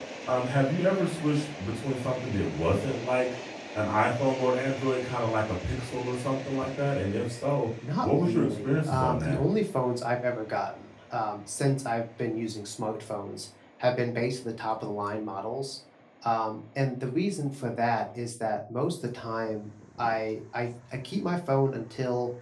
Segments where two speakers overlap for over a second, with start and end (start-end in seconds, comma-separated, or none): 8.0-9.4